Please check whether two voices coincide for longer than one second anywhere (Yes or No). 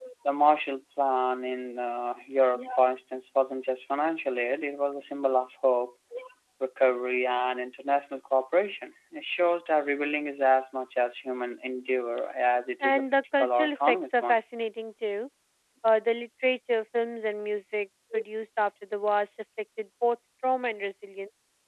Yes